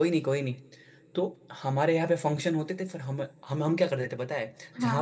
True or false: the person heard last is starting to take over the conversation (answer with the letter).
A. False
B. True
A